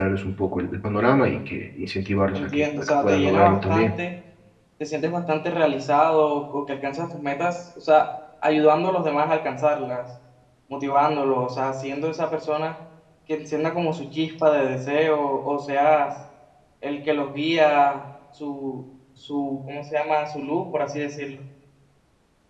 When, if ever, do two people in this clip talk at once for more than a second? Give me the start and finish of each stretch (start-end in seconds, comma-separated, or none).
2.3-3.9